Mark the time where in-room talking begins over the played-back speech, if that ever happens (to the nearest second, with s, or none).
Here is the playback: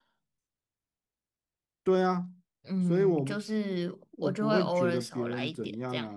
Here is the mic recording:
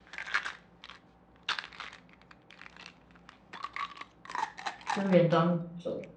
5 s